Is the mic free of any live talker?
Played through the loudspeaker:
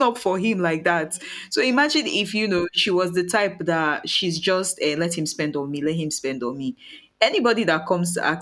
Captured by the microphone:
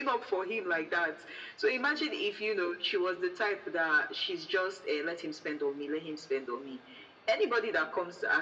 Yes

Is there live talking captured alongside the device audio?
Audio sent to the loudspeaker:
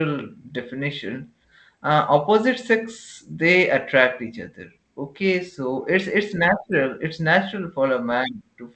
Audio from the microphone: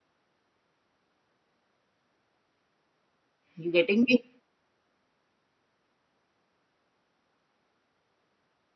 Yes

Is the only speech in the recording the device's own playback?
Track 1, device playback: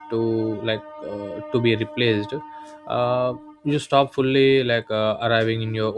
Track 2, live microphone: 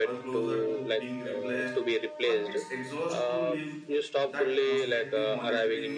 No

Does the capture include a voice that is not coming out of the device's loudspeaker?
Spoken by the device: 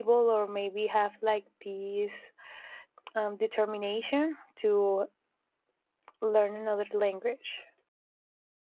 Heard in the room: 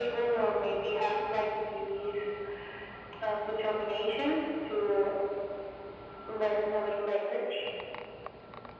No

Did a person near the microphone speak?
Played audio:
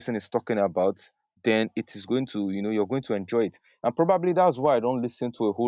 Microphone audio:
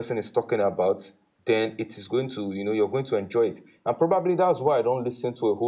No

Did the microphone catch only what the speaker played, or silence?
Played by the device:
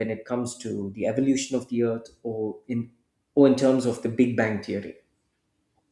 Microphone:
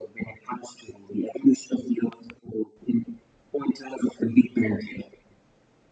Yes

